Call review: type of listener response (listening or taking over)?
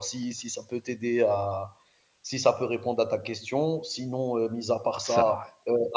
listening